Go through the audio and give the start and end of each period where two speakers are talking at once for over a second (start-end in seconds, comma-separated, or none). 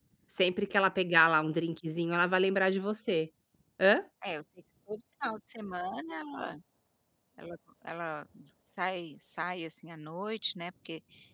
none